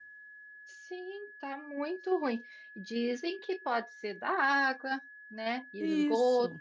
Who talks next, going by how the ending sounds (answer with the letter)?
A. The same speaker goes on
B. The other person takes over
A